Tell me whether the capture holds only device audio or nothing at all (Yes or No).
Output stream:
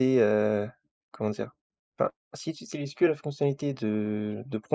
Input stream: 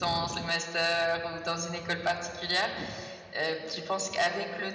No